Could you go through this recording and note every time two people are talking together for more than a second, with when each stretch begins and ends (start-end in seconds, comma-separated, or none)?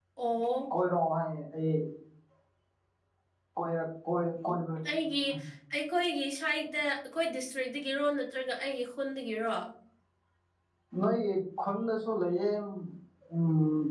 none